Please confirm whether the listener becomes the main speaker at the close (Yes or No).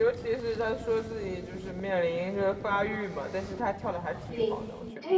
Yes